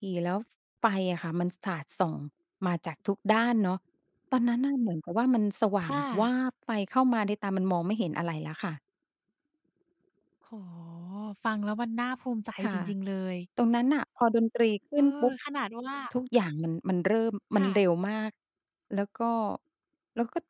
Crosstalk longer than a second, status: none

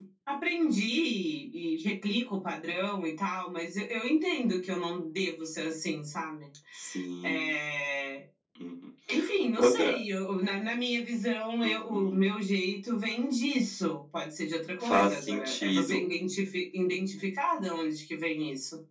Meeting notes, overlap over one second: present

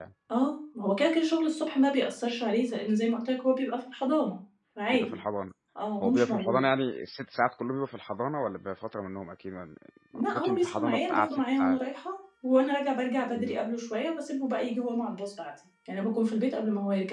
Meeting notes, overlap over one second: present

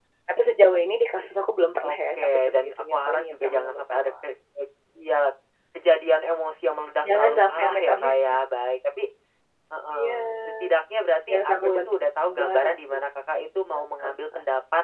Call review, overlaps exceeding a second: present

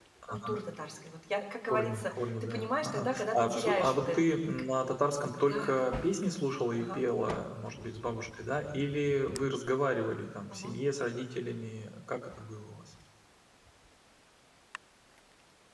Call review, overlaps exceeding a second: present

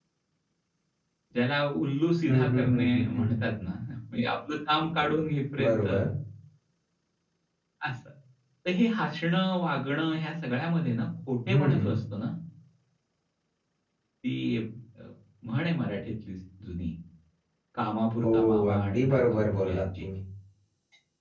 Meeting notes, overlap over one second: present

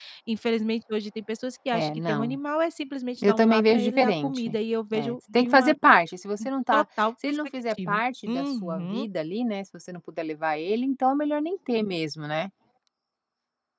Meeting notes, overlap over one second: present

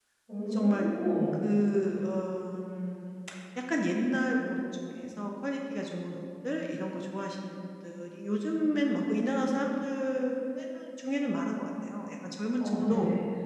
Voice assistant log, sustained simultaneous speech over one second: none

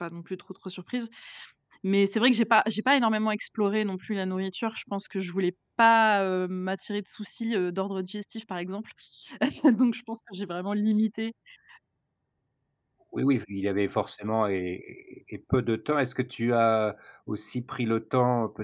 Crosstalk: none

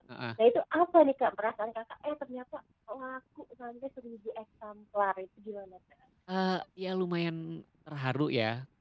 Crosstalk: none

